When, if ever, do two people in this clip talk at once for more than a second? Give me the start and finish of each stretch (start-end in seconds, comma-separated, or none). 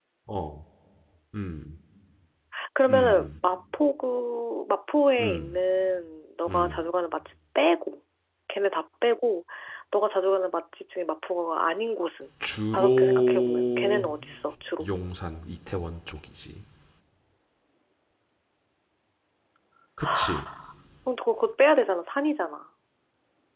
12.7-14.0